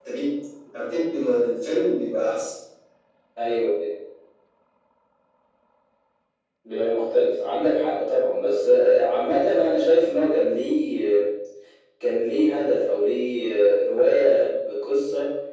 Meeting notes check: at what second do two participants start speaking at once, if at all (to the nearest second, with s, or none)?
none